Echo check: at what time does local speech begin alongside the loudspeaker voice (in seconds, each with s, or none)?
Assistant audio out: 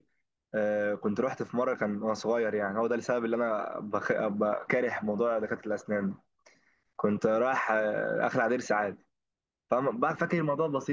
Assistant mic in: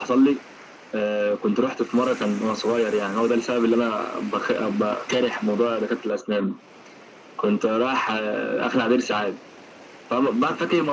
none